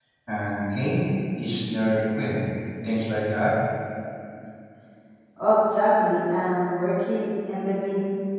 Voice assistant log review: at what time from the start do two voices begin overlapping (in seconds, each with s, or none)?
none